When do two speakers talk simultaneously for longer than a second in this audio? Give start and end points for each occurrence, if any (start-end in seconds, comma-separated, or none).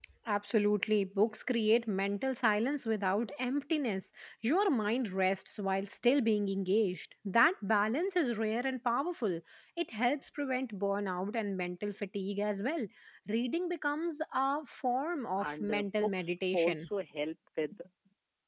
15.4-16.9